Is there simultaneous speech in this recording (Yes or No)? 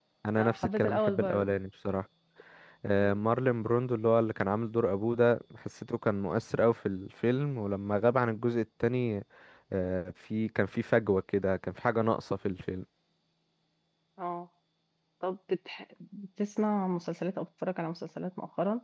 Yes